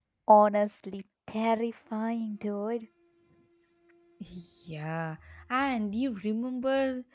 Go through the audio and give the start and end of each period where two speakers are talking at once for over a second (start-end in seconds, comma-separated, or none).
none